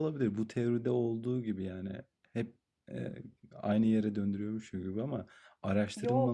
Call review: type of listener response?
listening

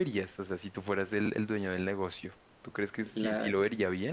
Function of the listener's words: listening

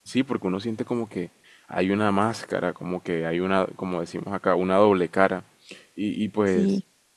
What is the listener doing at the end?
listening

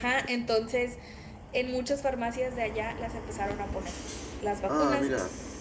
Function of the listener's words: listening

